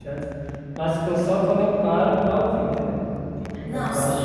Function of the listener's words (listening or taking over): listening